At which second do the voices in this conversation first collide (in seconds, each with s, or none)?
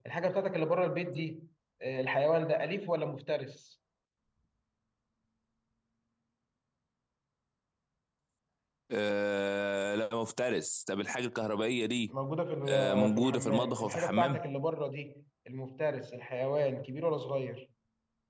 12.7 s